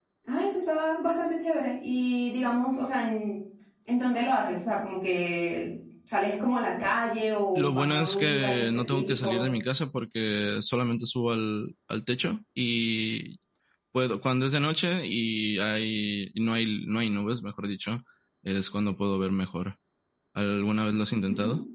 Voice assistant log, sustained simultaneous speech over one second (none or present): present